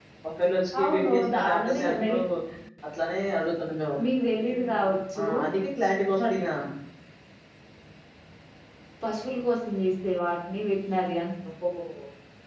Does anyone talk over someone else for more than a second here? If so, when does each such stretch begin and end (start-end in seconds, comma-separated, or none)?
0.8-2.1